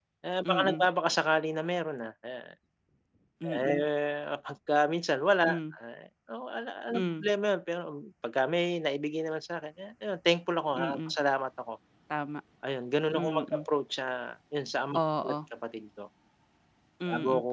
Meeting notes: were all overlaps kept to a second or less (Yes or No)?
Yes